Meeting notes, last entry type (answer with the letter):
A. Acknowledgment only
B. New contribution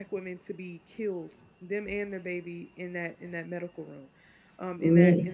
A